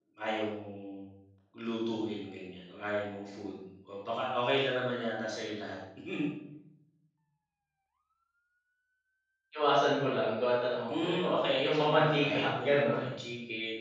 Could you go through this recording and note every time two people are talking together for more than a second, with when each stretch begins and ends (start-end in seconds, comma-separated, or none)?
10.9-13.0